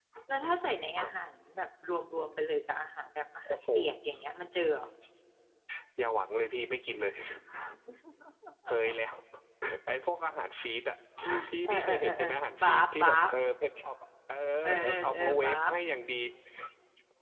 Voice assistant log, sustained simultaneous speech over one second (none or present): present